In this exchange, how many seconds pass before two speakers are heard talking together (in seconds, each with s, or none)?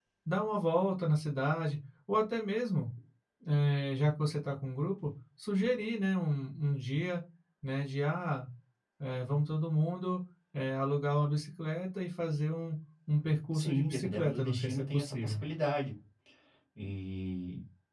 13.5 s